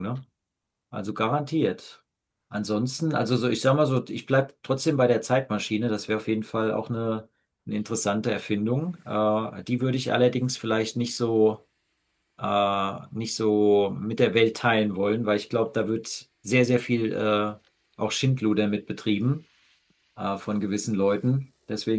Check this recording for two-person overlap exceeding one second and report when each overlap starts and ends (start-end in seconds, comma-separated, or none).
none